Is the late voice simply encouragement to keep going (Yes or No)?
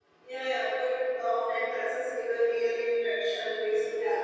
Yes